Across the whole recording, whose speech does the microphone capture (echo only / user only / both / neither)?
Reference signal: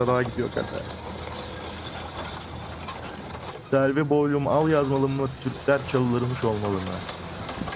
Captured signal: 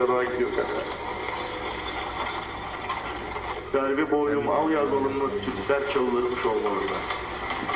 both